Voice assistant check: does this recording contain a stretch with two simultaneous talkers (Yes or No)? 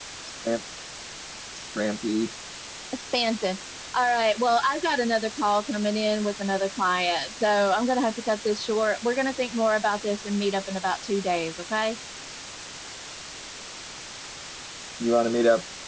No